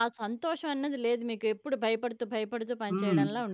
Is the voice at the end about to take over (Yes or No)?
Yes